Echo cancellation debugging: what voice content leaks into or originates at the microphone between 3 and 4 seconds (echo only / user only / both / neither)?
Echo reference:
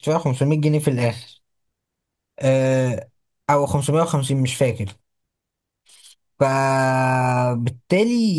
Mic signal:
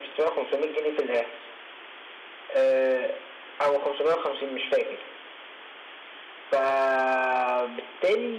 echo only